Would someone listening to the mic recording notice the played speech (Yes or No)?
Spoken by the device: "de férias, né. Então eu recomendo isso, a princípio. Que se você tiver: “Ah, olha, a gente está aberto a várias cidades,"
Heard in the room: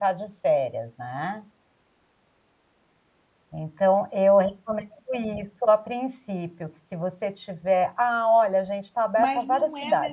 Yes